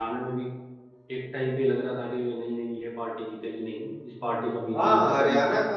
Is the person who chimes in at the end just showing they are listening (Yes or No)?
No